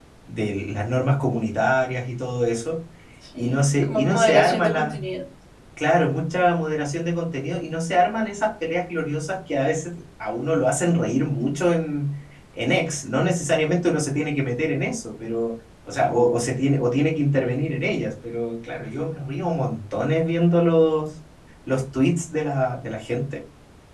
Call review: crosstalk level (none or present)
present